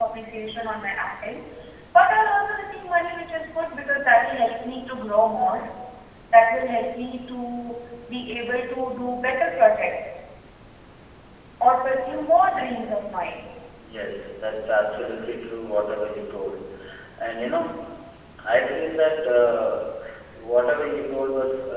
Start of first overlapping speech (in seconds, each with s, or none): none